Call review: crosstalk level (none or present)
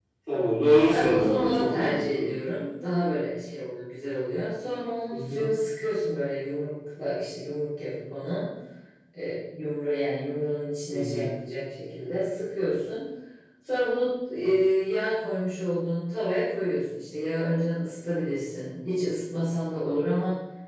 present